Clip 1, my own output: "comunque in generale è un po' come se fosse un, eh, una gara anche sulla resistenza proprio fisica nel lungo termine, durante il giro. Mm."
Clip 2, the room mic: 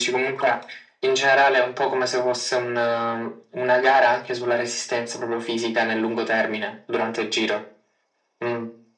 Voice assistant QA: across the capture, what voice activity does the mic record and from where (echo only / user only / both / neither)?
echo only